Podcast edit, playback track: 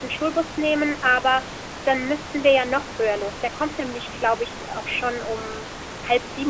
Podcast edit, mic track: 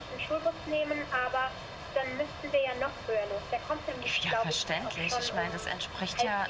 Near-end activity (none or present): present